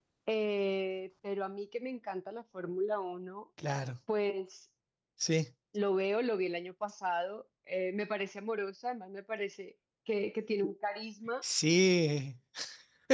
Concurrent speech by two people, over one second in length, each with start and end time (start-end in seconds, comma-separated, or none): none